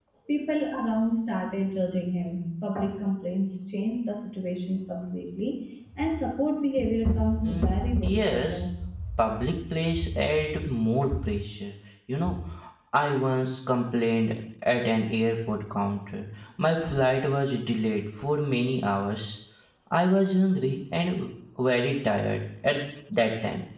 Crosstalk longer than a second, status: present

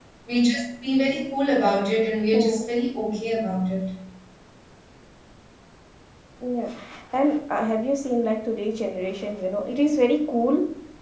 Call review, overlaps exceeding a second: none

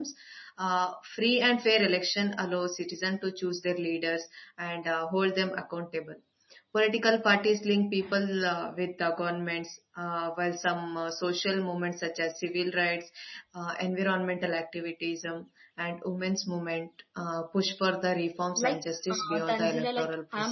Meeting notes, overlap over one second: present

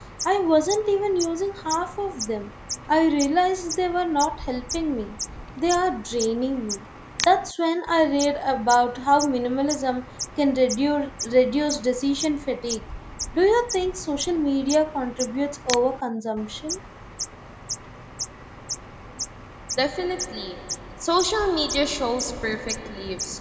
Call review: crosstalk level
none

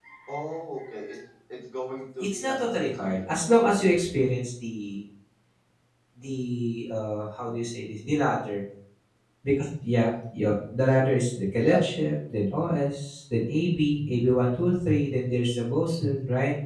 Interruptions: present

